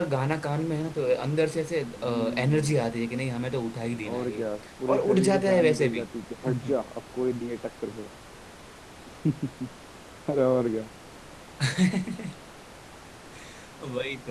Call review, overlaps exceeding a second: present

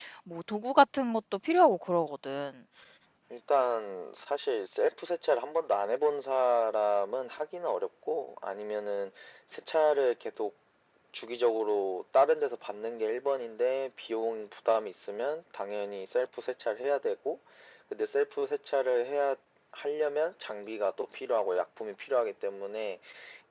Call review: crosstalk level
none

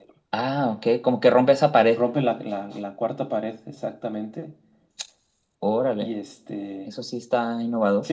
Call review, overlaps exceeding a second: none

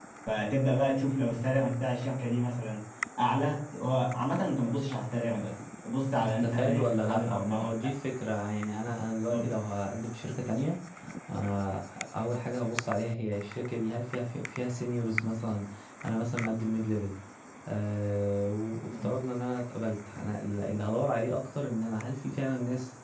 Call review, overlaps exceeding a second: present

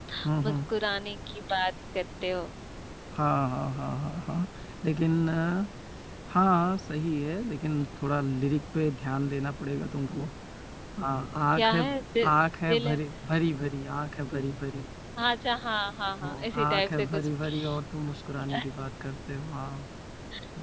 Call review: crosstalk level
present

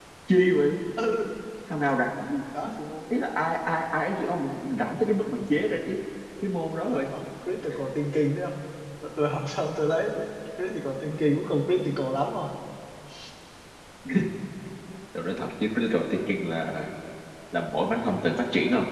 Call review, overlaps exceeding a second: none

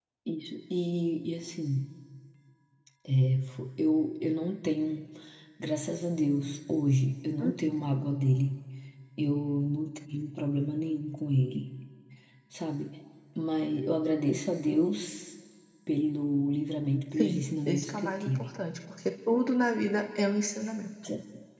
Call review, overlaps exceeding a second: present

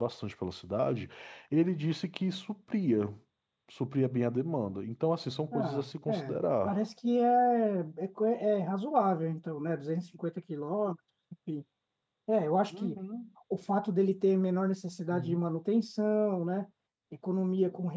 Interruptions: present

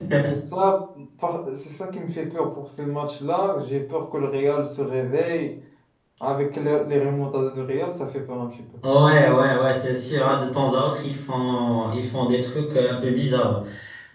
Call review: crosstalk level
none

